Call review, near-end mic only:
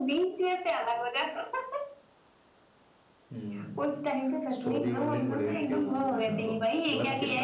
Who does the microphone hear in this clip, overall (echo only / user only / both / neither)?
both